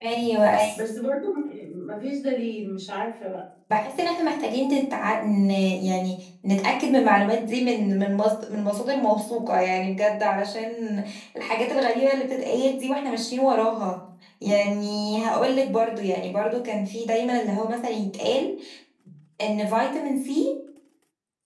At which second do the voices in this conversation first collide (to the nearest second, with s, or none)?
none